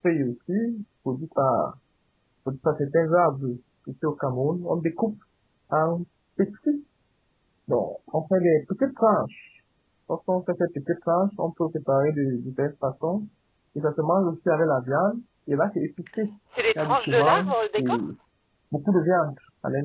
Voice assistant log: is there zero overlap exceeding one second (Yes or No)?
No